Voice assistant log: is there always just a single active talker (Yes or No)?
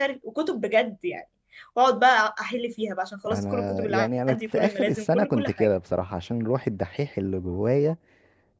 No